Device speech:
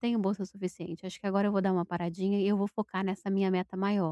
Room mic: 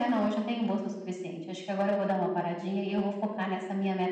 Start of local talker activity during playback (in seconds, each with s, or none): none